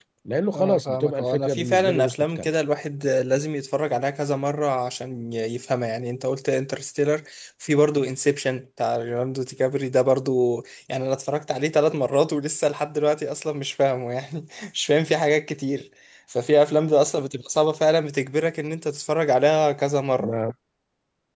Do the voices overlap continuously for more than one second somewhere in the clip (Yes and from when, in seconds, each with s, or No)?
Yes, from 0.5 s